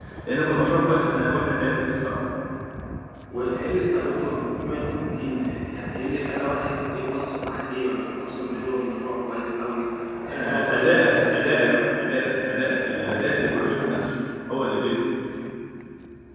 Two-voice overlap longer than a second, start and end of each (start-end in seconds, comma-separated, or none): 10.3-11.8